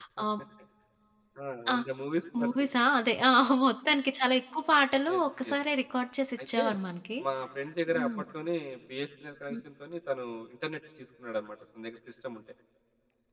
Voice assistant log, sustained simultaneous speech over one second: none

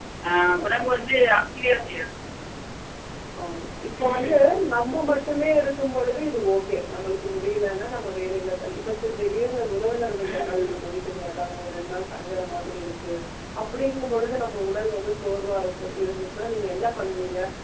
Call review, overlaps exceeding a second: none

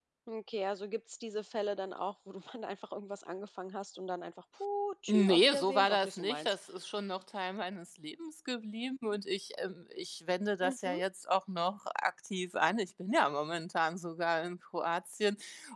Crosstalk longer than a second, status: present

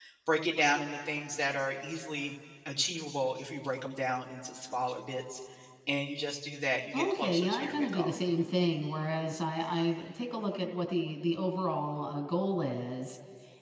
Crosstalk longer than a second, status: present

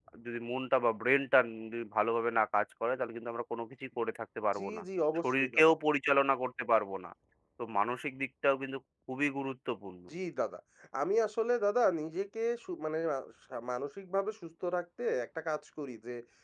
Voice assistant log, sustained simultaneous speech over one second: none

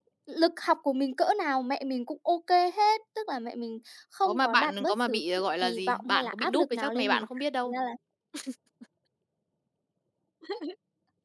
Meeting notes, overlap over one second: present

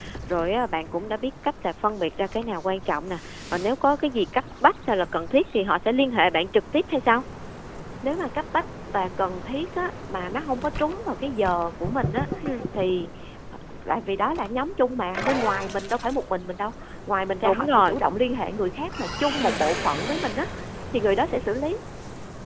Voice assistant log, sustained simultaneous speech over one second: none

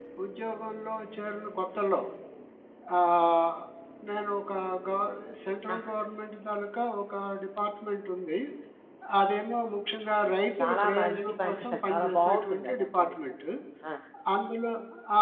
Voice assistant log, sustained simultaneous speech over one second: present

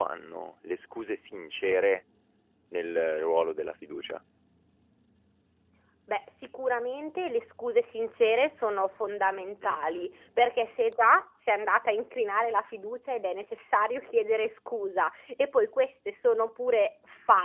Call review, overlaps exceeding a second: none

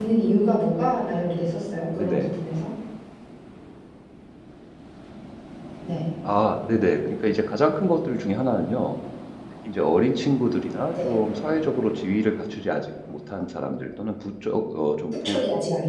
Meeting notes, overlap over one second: none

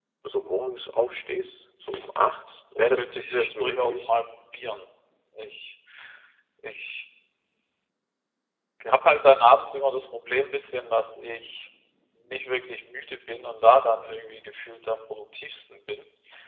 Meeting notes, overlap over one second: present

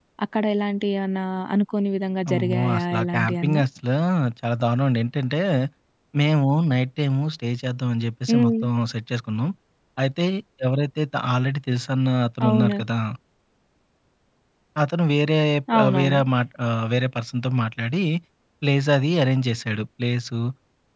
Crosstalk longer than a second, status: present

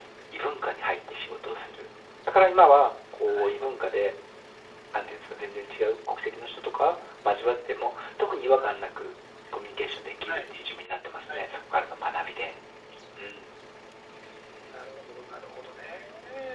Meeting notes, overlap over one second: none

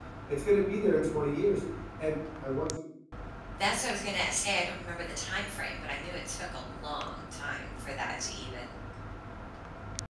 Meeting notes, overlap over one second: none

